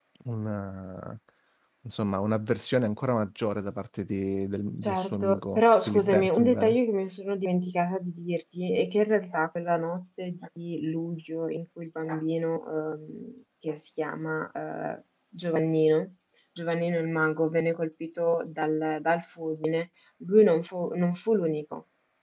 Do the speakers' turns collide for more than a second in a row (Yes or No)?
Yes